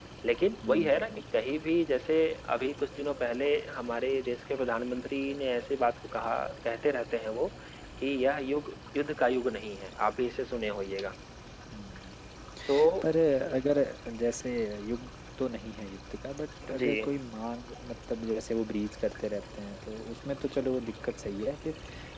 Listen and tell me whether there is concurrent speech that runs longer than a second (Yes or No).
No